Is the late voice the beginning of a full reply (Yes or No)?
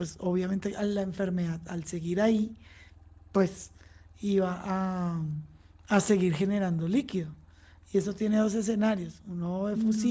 No